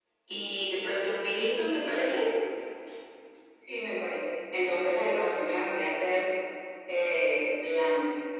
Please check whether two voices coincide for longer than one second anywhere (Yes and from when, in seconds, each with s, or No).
No